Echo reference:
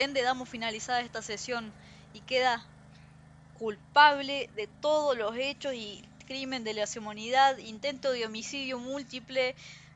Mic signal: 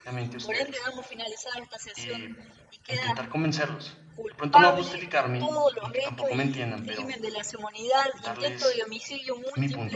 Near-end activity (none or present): present